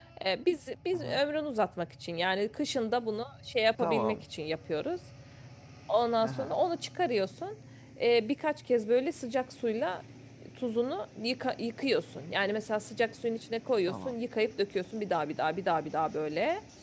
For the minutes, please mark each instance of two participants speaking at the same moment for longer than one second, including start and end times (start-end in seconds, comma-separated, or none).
none